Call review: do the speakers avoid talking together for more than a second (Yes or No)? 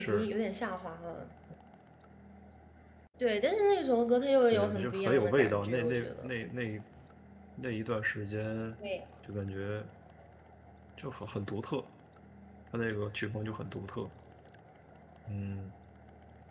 No